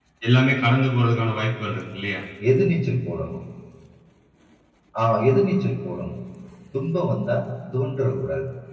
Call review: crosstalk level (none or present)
none